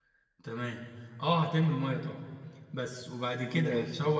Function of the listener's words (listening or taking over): listening